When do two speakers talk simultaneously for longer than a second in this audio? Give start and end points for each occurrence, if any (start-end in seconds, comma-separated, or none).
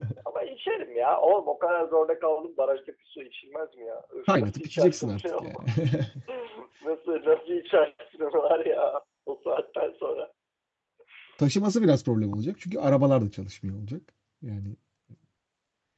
4.3-5.6